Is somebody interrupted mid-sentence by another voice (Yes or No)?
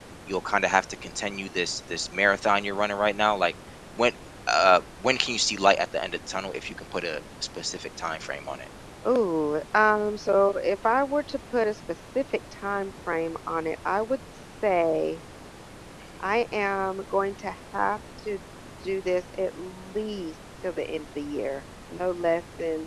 No